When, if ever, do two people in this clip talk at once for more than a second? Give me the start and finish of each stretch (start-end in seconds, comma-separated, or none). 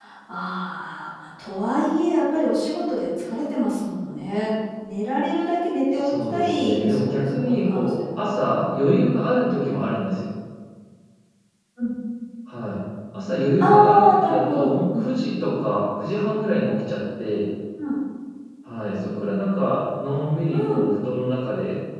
5.9-8.3, 13.6-15.3